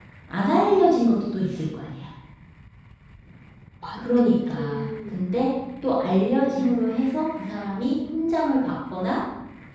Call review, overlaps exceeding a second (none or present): present